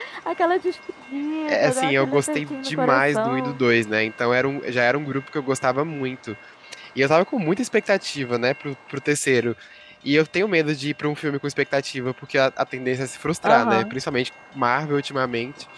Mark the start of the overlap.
1 s

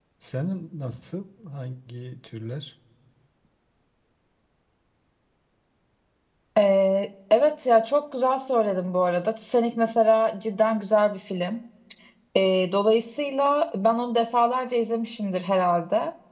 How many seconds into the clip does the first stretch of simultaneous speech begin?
none

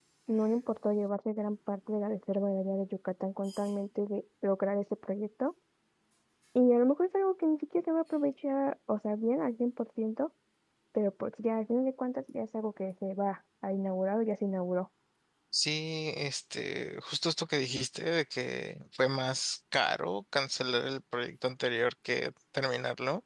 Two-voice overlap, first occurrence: none

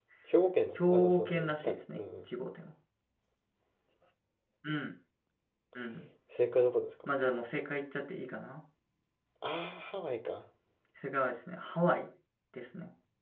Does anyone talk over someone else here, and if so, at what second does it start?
1 s

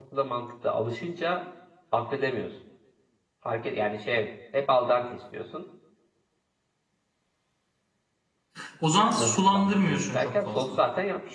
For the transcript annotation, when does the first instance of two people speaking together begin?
9 s

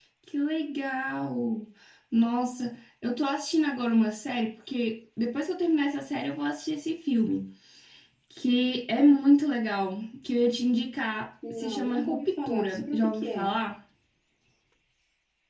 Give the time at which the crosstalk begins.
11 s

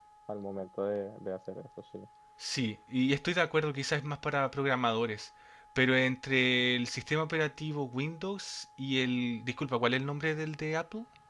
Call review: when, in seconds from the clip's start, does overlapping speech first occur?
none

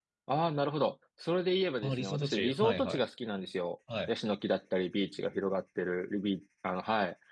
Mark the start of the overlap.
2 s

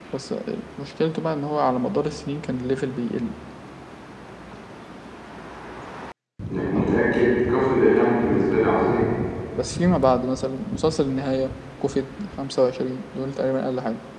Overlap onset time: none

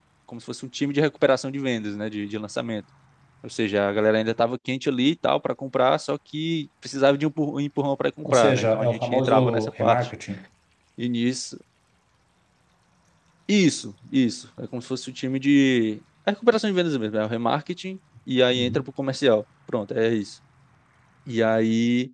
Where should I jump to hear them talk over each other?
8 s

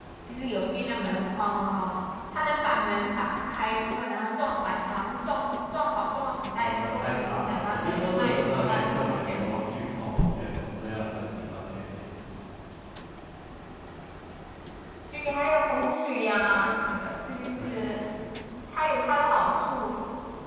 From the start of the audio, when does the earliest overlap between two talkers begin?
7 s

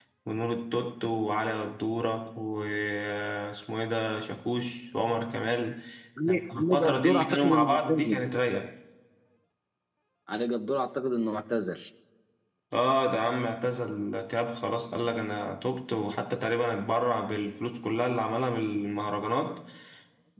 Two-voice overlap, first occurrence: 6 s

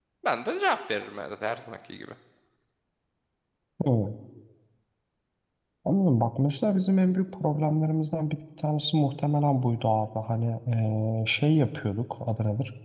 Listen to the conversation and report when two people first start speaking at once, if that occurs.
none

